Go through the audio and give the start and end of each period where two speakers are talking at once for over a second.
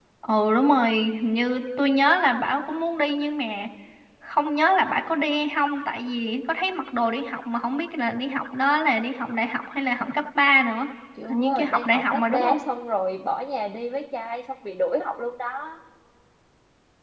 11.3-12.6

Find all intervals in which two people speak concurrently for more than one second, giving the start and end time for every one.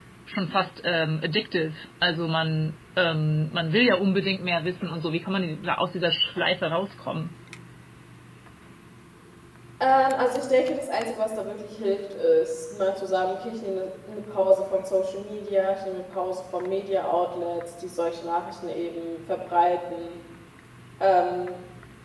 none

